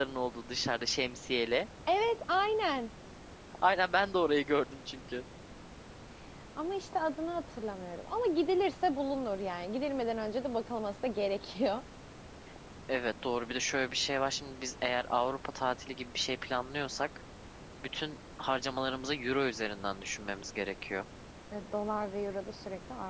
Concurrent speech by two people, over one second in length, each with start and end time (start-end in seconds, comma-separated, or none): none